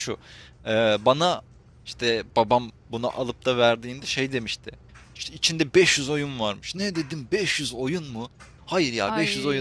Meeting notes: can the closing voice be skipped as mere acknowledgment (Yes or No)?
Yes